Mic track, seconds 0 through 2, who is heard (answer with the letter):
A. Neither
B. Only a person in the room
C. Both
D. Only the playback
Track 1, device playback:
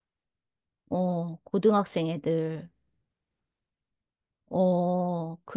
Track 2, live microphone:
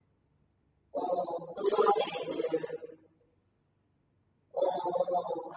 D